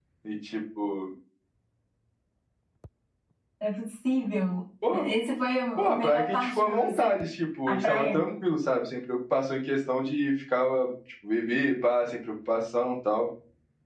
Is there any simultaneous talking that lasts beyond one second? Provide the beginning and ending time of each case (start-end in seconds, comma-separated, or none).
5.8-7.2